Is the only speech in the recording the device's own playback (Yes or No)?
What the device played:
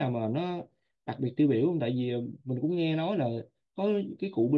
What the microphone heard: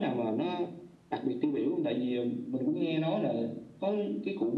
Yes